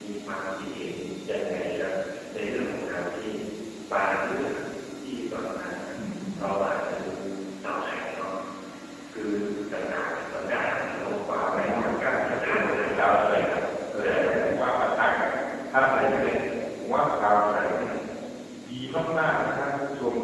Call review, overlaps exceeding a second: present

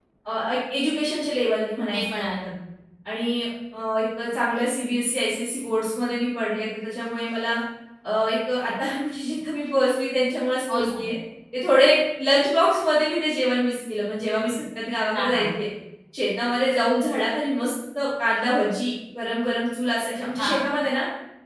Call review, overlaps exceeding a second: none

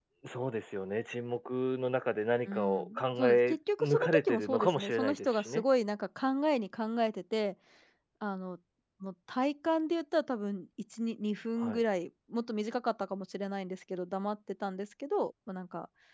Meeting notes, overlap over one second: present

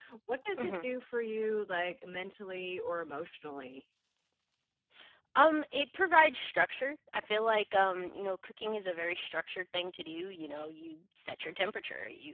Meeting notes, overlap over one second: none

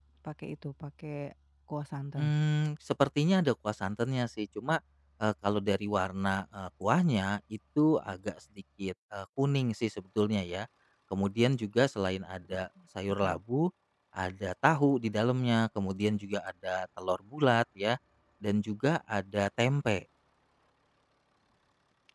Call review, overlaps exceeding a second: none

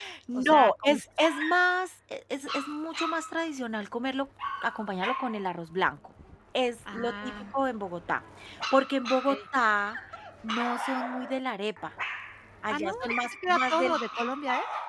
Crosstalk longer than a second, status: present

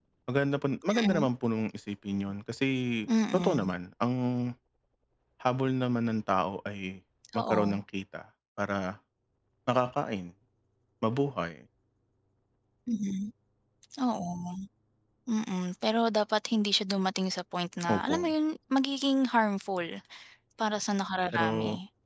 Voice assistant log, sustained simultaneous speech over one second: none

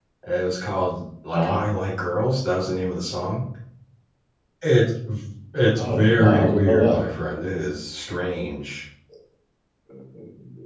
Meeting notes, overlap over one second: present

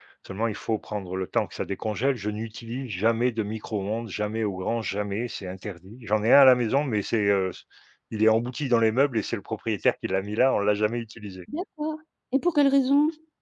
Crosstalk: none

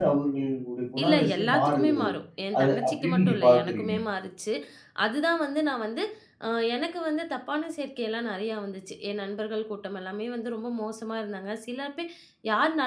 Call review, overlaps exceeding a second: present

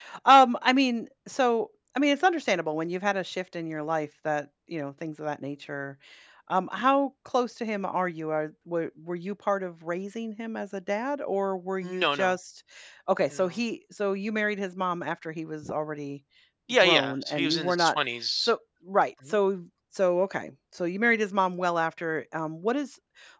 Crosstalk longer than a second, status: present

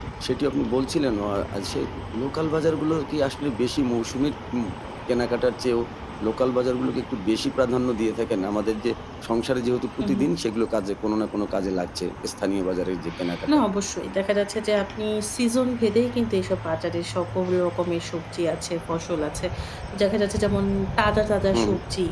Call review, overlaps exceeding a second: none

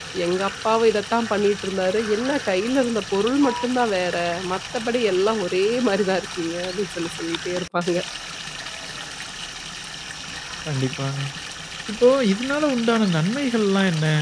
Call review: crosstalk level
none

